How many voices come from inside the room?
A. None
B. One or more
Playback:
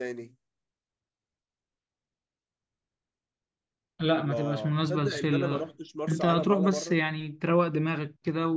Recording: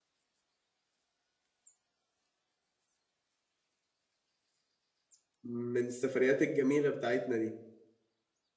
B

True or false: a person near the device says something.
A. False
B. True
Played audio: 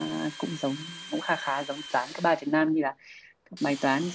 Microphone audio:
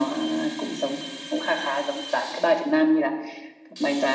A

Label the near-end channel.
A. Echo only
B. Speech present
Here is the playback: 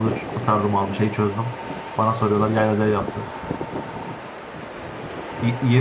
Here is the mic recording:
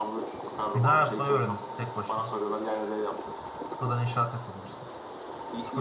B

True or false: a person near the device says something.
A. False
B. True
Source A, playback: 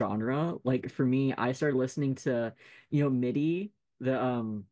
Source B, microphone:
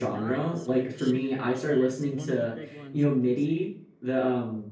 B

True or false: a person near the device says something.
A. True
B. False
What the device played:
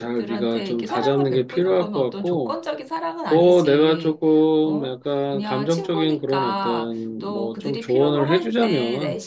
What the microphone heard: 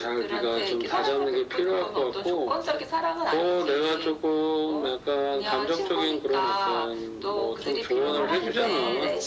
A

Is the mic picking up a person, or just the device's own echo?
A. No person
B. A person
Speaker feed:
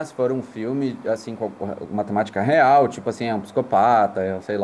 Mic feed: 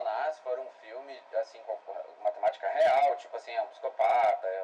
A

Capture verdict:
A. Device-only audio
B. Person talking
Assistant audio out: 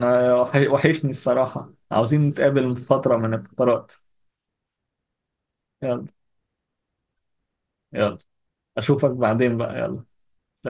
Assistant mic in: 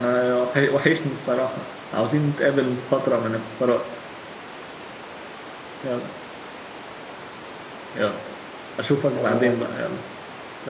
B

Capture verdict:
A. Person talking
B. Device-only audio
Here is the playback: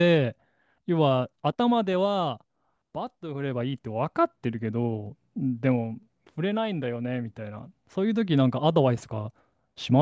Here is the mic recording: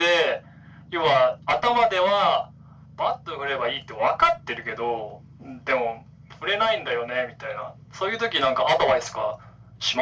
B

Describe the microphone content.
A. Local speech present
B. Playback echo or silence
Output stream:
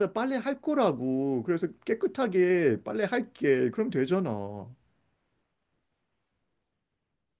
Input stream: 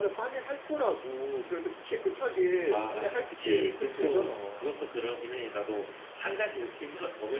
A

